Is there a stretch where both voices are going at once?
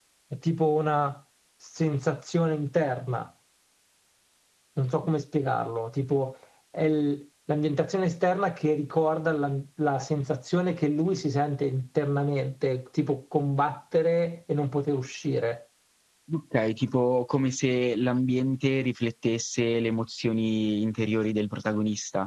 No

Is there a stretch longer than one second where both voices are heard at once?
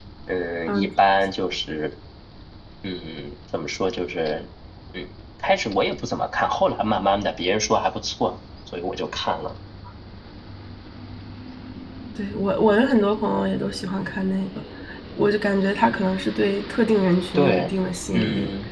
No

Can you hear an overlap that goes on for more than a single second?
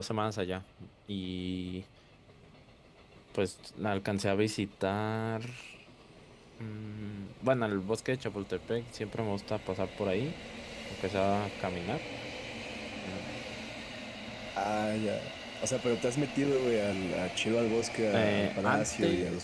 Yes, from 18.1 s

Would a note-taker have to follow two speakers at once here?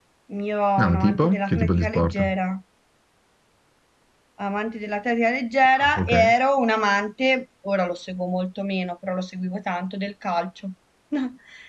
Yes, from 0.8 s

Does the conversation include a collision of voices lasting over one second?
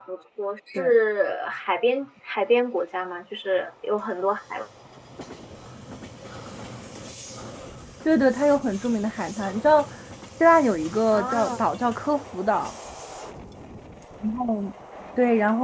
No

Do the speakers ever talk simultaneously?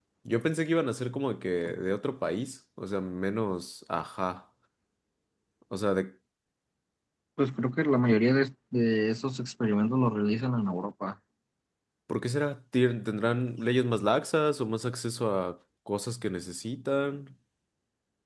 No

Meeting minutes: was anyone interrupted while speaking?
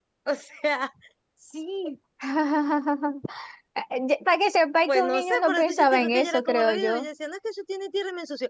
Yes, from 4.9 s

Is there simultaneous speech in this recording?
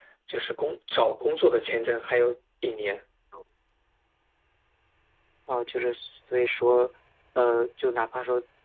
No

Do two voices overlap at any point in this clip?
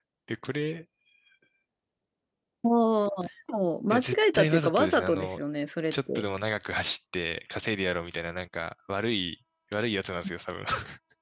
Yes, from 3.9 s

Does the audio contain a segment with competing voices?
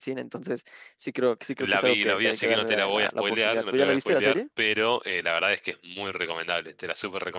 Yes, from 1.6 s

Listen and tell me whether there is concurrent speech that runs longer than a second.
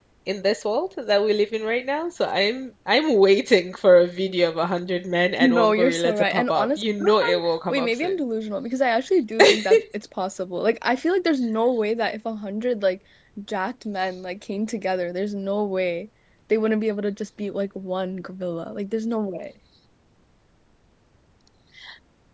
Yes, from 5.4 s

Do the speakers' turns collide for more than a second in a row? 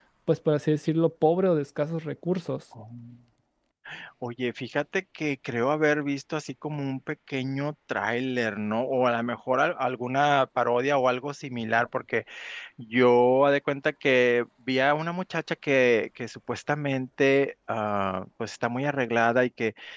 No

